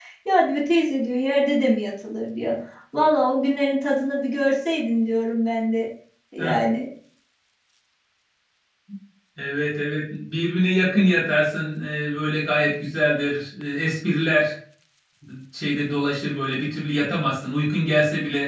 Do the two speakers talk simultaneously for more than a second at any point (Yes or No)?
No